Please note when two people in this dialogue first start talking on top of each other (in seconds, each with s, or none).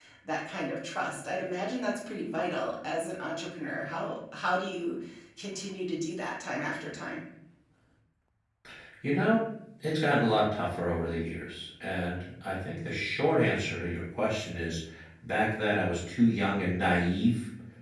none